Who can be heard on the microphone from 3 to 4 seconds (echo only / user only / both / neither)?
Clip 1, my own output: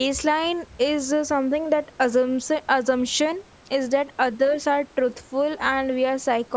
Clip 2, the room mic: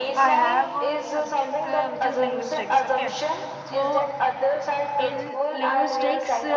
both